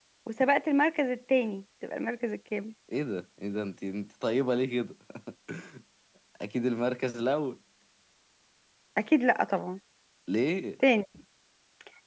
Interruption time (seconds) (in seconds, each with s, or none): none